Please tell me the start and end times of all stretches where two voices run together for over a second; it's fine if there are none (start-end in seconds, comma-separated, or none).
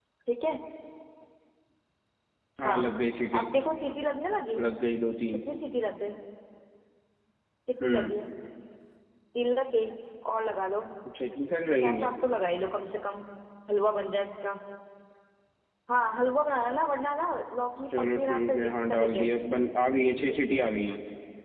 18.0-19.4